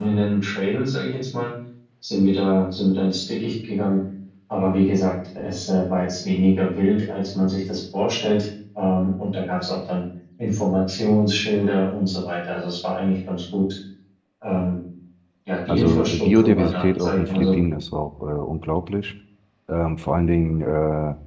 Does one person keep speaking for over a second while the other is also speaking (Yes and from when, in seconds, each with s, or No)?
Yes, from 15.7 s